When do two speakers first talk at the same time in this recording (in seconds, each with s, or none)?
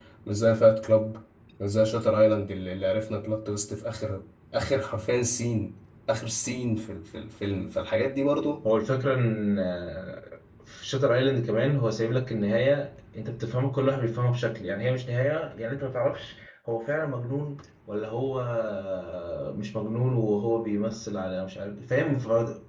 none